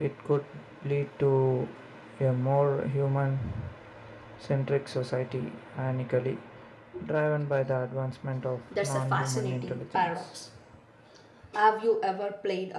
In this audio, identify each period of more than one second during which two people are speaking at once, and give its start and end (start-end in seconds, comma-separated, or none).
8.7-10.4